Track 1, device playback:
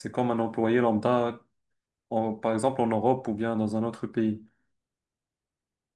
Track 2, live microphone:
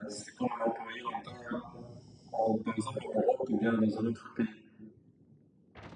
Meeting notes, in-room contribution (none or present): none